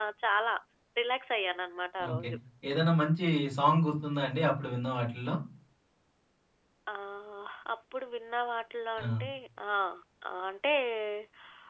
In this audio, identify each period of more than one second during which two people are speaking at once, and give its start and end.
none

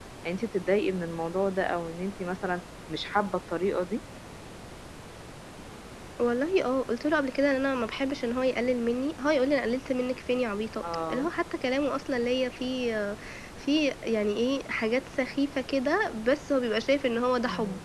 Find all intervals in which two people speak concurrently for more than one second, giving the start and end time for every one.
none

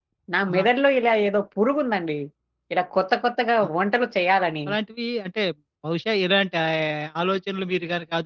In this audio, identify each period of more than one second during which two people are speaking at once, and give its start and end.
none

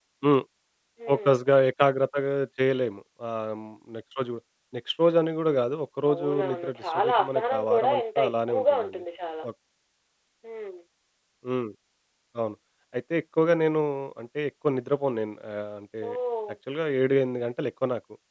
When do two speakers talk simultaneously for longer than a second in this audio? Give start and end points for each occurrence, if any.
6.1-8.9

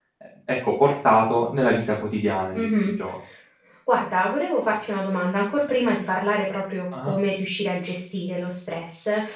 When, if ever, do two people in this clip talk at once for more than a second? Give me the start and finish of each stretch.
none

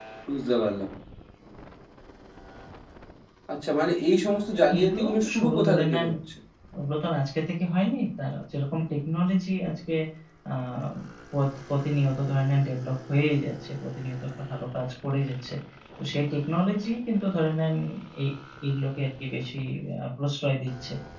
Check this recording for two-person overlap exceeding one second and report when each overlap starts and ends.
4.8-6.1

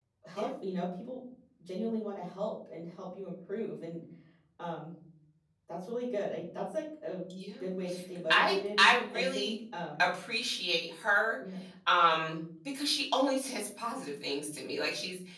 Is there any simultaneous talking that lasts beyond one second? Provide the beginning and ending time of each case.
8.3-9.5

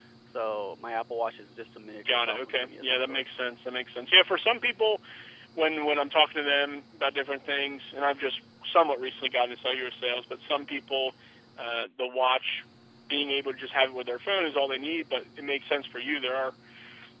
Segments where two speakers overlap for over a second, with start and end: 2.0-3.3

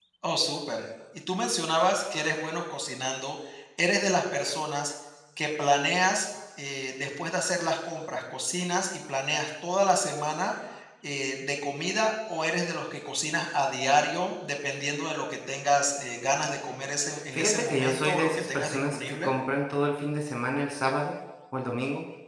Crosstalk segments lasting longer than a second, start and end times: 17.3-19.3

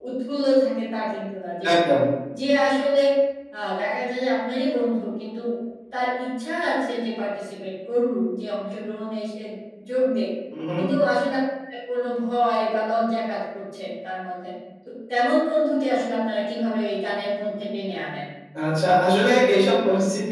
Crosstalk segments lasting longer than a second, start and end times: none

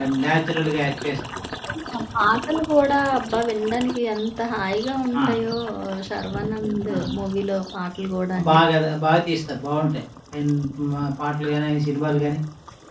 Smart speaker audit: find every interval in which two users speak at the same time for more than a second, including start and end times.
none

